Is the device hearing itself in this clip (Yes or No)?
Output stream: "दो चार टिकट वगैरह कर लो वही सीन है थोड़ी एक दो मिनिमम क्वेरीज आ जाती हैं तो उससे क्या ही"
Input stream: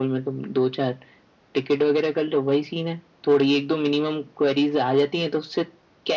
Yes